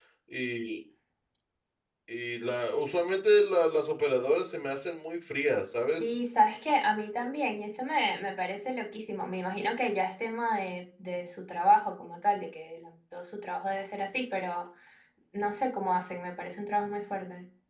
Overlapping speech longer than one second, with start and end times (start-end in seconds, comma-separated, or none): none